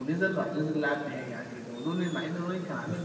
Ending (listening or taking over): taking over